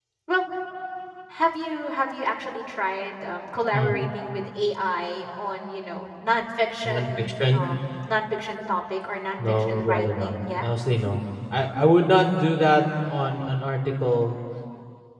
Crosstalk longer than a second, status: present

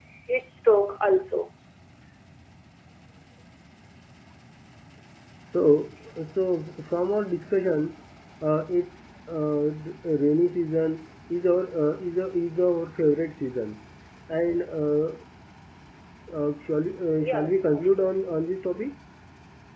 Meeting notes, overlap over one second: present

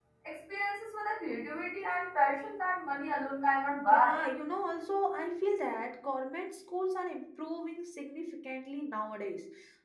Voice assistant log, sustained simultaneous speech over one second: none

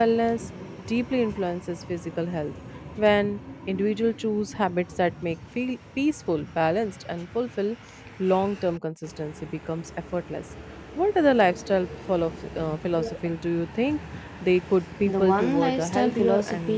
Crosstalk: present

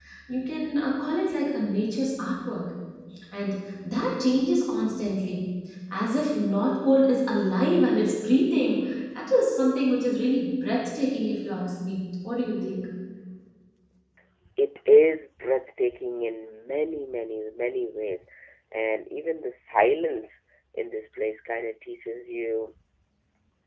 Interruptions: none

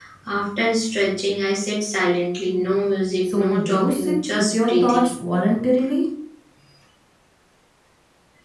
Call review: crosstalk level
present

